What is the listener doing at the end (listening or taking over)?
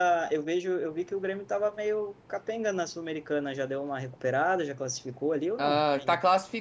taking over